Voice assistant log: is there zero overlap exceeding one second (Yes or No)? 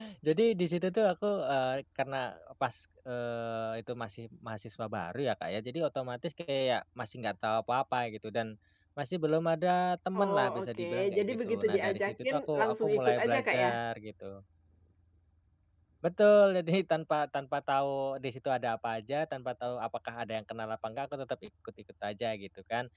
No